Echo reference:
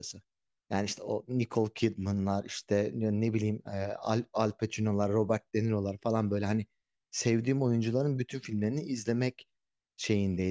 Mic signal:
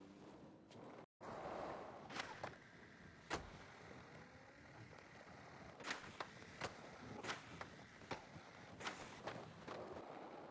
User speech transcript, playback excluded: none

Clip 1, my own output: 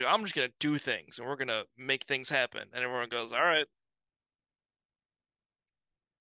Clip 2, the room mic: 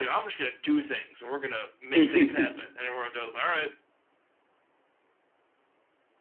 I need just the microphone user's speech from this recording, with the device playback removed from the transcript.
hmm

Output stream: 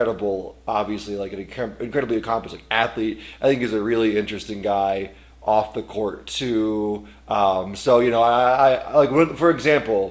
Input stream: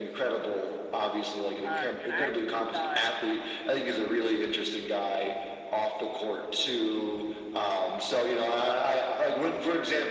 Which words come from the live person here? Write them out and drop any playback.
Um, and I actually thought

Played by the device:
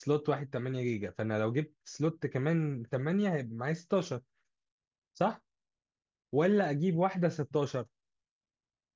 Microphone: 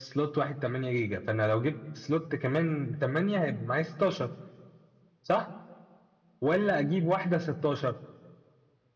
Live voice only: none

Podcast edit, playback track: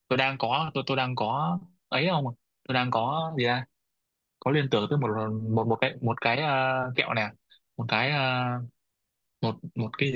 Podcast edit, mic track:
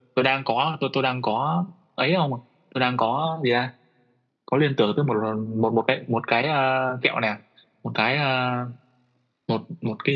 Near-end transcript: none

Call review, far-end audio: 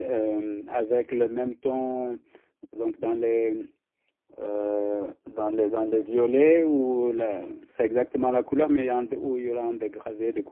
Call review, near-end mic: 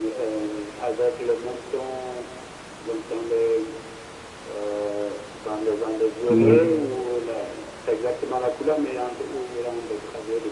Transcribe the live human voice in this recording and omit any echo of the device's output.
Oui,

